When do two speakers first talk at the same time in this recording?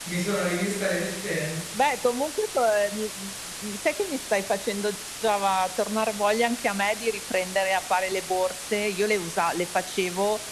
none

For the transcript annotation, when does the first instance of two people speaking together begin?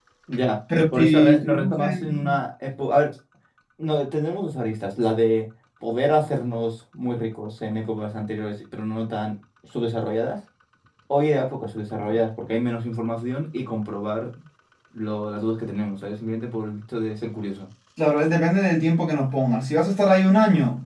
1 s

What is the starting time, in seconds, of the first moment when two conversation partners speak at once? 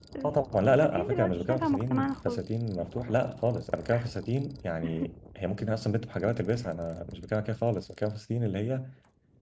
1 s

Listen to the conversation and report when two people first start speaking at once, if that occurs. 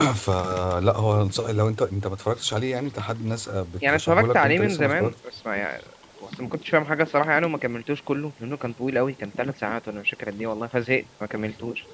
4 s

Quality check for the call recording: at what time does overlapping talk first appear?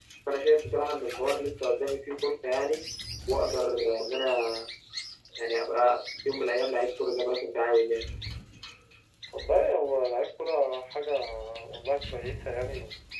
none

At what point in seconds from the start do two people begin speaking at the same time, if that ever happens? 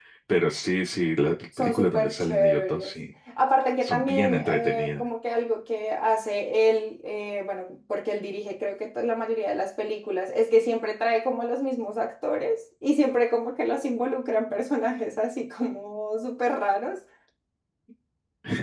2 s

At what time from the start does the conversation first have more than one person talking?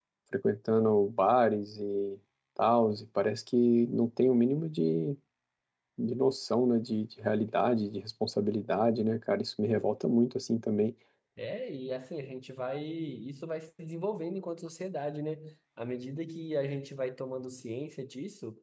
none

